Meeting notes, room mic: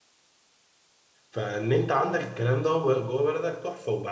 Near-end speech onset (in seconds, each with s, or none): 1.3 s